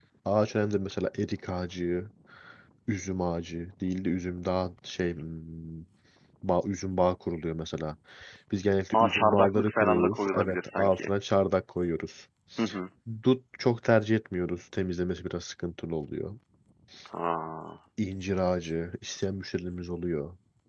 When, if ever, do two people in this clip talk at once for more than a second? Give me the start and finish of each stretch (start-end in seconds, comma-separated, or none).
8.9-11.1